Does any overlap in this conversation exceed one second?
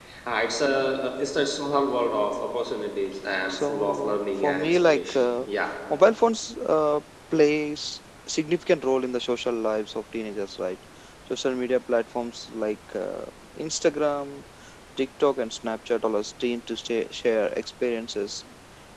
Yes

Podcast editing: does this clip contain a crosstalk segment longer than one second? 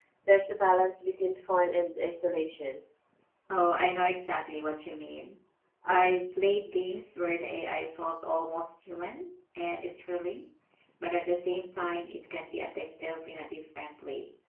No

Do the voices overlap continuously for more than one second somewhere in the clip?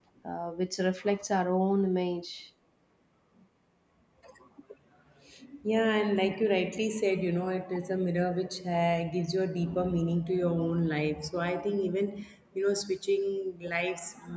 No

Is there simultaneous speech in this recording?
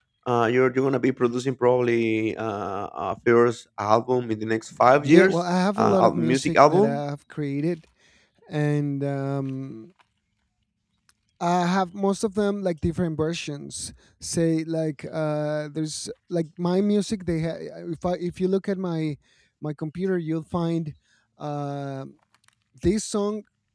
Yes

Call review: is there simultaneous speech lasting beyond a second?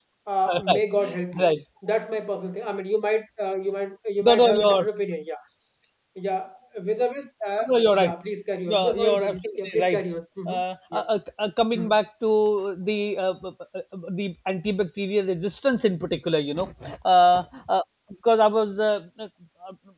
Yes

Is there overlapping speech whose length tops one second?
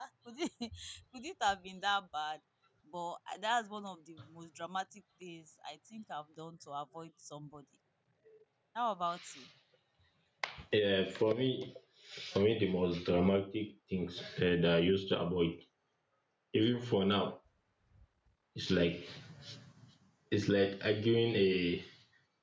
No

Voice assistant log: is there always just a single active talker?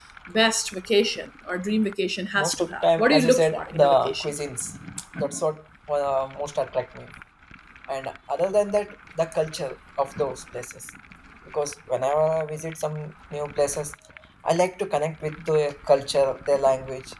No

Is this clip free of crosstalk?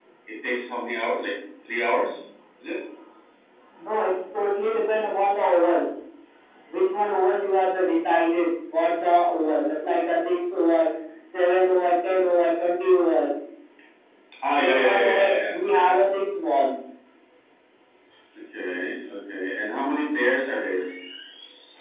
No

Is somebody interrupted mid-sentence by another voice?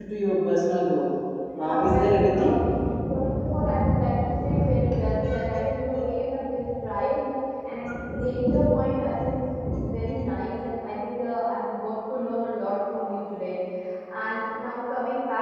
Yes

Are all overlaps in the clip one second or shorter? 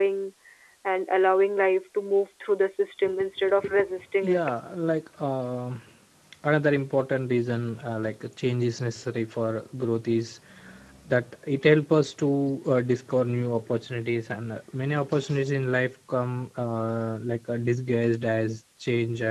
Yes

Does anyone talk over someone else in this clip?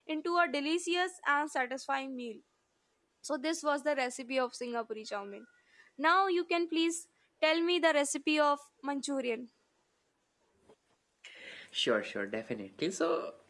No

